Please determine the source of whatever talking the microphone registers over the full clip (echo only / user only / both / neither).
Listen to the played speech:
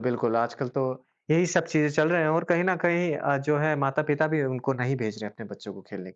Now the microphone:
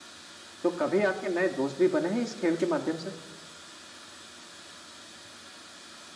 user only